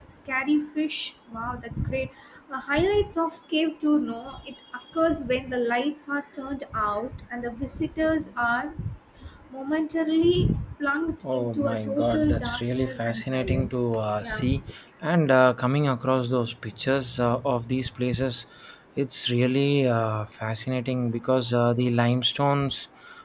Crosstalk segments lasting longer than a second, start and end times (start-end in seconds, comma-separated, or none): 11.3-14.4